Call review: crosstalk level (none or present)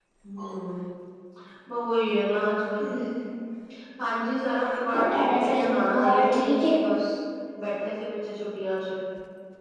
present